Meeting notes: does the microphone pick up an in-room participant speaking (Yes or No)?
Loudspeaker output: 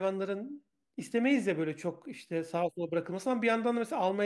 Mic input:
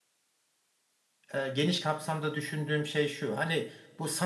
Yes